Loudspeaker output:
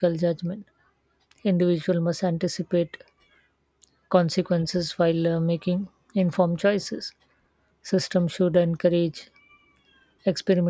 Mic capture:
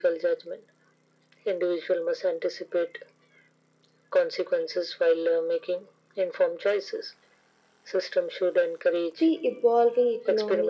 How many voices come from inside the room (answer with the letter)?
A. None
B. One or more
B